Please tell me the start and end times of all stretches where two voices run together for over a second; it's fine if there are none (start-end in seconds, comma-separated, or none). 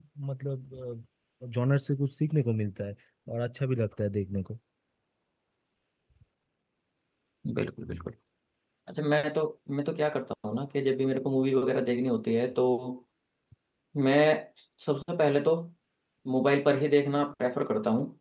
none